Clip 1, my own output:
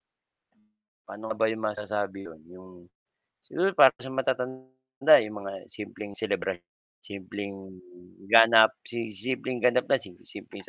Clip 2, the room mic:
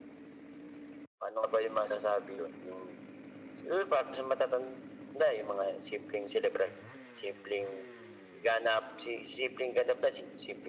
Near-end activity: none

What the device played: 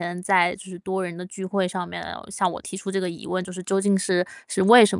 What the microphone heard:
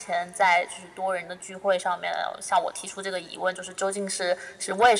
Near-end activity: none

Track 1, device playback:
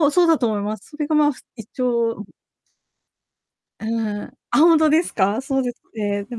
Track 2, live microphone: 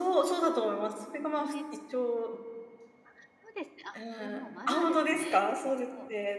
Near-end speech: present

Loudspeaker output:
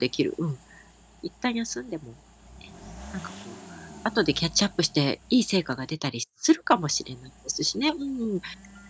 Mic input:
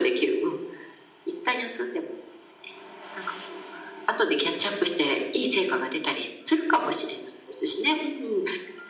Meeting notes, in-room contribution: none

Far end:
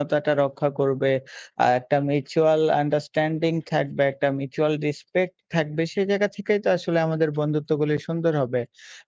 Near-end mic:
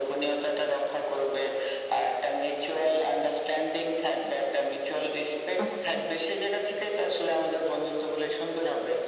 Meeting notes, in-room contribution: present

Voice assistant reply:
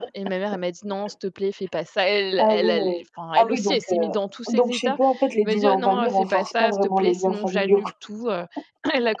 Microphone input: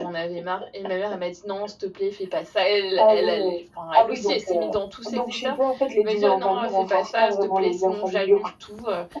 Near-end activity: none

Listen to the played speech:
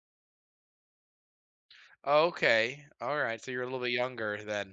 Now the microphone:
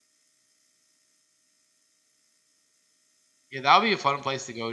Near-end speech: present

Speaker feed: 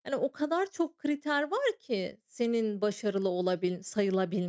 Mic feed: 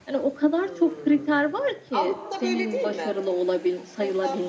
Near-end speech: present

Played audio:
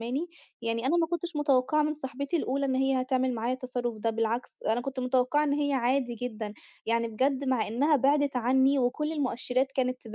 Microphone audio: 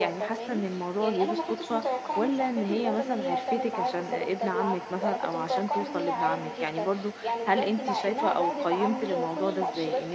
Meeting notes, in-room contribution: present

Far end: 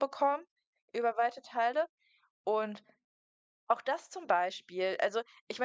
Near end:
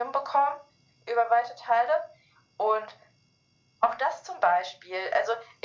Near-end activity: none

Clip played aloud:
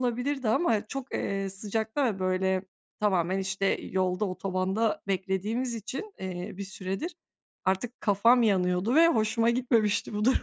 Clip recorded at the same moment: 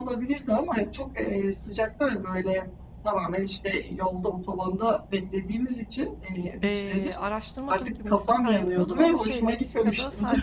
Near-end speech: present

